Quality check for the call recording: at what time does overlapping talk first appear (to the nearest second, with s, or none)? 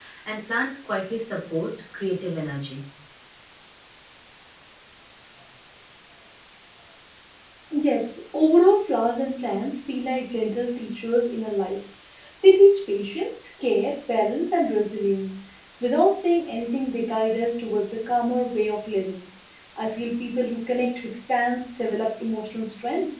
none